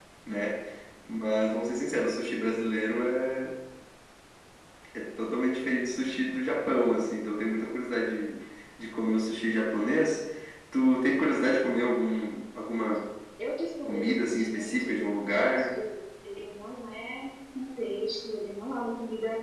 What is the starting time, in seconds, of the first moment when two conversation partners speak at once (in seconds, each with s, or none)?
13.9 s